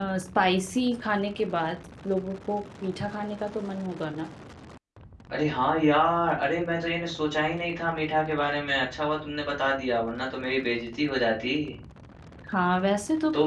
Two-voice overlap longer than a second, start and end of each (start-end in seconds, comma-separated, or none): none